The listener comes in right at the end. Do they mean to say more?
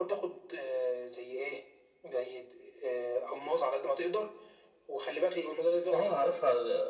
Yes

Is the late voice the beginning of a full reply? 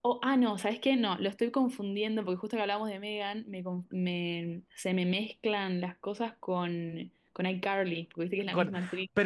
Yes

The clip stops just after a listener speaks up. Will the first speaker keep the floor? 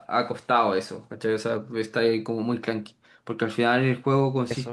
Yes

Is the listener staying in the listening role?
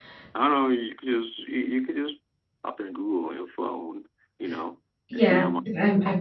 No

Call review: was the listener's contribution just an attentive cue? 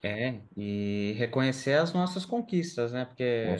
Yes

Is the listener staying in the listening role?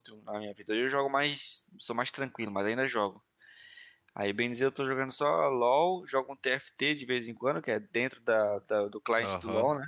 No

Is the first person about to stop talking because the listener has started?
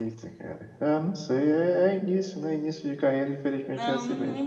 Yes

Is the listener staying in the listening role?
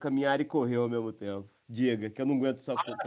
No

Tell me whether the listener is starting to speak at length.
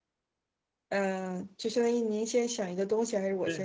Yes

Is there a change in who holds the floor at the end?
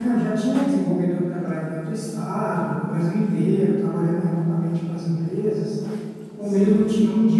No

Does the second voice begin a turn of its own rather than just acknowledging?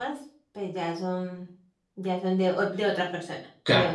Yes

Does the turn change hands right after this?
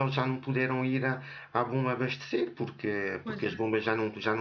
No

